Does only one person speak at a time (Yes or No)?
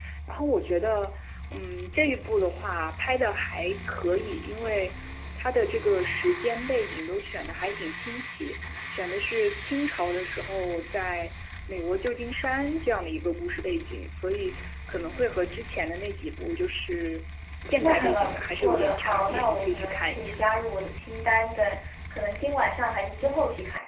No